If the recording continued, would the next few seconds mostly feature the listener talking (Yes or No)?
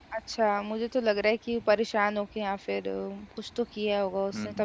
Yes